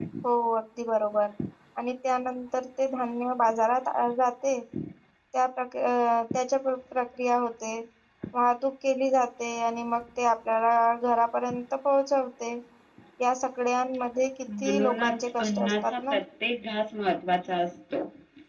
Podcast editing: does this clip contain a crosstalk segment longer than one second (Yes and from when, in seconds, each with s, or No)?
Yes, from 14.5 s